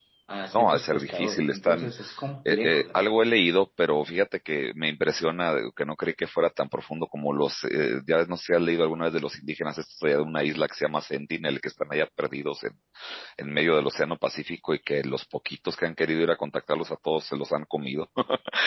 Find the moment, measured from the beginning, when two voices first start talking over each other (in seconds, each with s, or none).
0.5 s